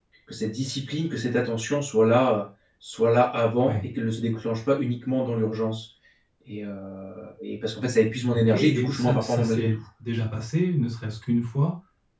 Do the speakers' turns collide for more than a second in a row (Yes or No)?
Yes